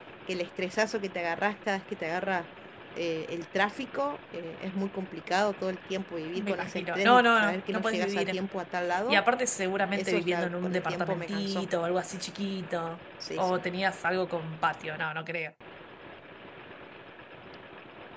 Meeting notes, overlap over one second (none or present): present